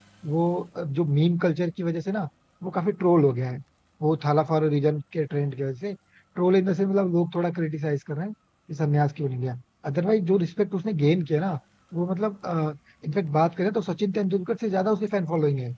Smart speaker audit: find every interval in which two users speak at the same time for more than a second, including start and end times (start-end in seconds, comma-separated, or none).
none